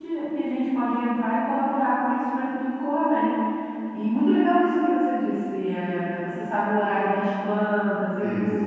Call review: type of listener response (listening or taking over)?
listening